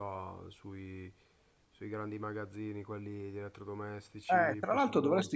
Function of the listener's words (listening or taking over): taking over